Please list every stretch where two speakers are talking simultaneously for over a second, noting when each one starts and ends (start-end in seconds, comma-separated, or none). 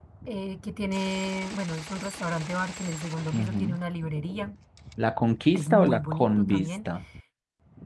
5.5-6.9